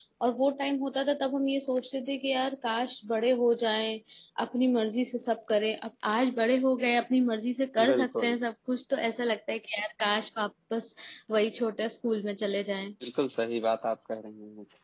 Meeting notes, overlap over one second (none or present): none